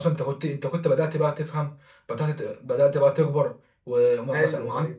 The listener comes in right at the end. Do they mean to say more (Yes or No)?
No